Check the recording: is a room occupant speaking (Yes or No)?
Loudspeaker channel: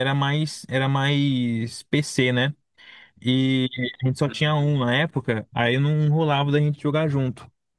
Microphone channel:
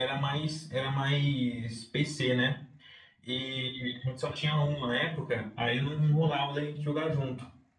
No